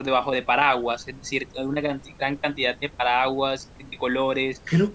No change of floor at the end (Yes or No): Yes